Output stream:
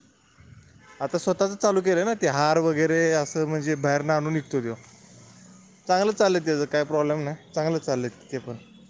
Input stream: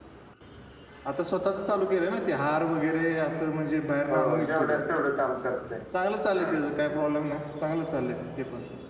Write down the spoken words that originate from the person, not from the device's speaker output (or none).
हो जेवढ्याच तेवढं काम करतय हा